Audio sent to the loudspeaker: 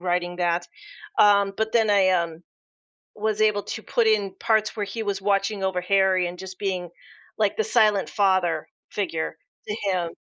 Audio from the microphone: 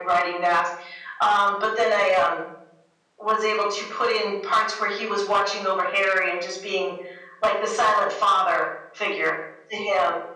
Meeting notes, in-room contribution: none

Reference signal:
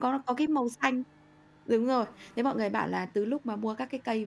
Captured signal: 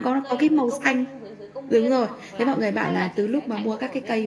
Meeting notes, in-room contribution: present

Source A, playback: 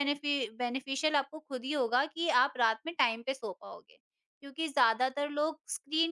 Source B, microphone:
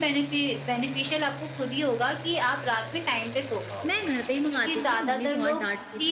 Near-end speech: present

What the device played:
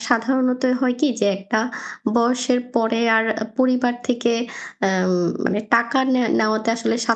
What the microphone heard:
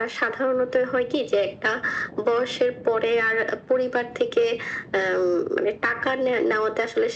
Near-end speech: none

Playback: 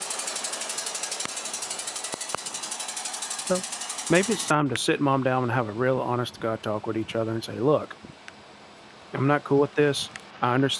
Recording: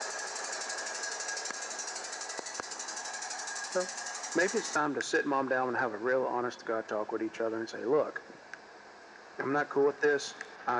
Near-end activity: none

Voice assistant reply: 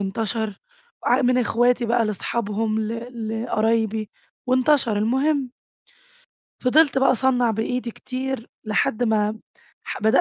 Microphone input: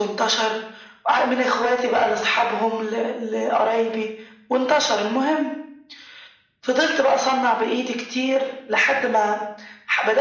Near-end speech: none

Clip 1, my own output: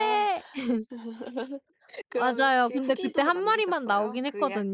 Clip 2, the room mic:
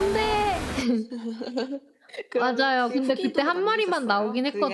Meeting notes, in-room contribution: none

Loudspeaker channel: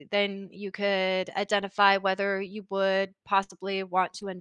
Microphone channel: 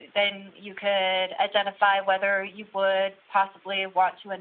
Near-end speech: none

